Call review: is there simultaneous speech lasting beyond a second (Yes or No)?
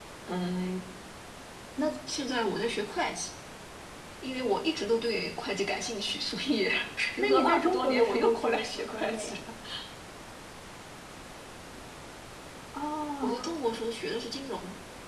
Yes